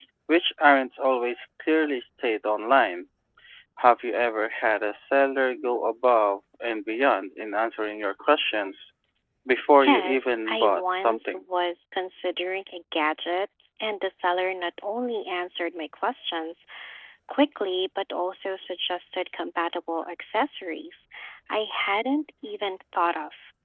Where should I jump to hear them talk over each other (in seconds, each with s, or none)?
9.8 s